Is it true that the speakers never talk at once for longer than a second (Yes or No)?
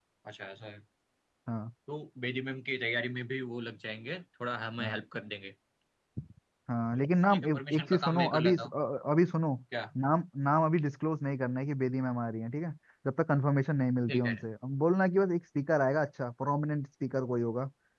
No